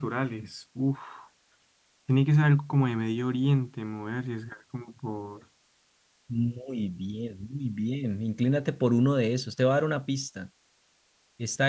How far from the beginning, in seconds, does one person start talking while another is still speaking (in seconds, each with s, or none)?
none